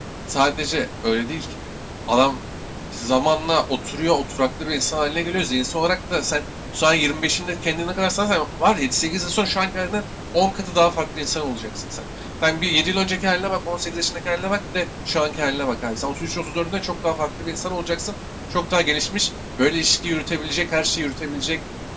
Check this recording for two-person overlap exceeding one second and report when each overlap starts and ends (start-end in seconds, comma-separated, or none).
none